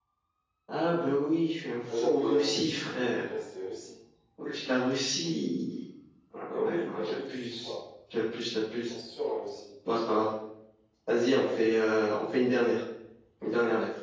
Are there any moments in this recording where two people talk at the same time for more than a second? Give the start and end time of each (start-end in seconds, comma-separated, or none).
1.9-3.2, 6.5-7.7